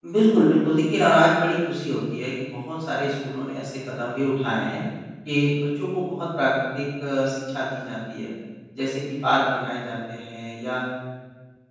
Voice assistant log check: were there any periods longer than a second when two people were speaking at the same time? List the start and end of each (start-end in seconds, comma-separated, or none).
none